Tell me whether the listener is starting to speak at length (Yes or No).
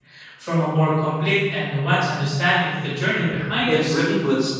Yes